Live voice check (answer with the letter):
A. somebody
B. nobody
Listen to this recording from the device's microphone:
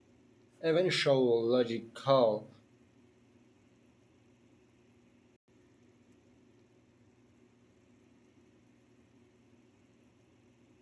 A